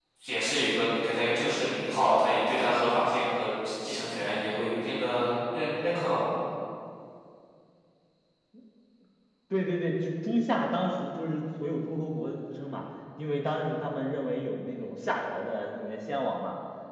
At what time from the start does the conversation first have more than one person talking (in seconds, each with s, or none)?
none